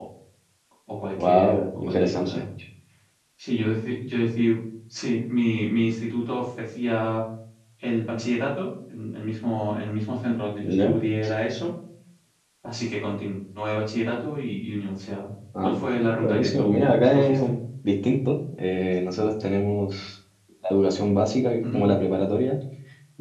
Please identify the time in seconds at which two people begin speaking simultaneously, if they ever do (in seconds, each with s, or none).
1.1 s